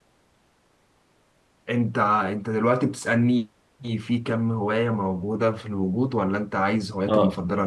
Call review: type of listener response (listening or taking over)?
taking over